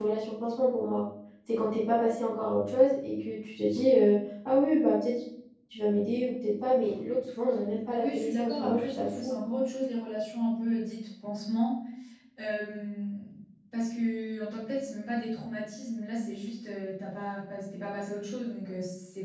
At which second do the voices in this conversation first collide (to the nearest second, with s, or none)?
8 s